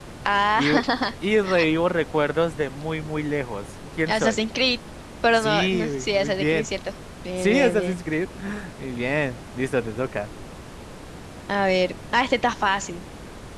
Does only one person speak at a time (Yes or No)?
No